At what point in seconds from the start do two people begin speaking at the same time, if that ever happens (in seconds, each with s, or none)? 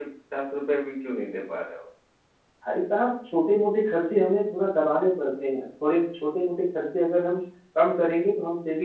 none